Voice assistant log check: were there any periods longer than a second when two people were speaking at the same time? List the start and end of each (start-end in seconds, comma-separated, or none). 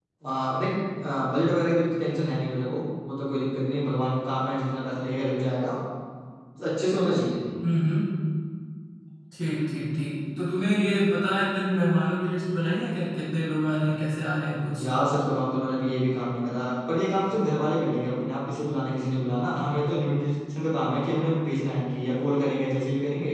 none